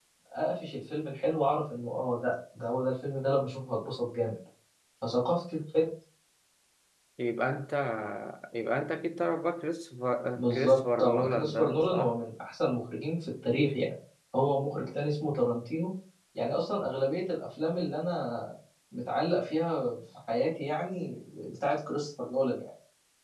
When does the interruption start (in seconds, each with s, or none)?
10.3 s